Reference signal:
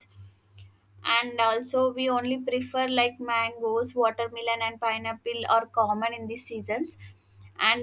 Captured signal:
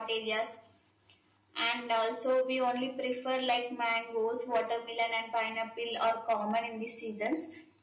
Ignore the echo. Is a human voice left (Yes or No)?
No